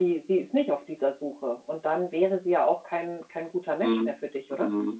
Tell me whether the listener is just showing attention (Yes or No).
No